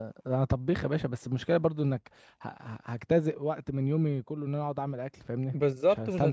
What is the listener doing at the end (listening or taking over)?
taking over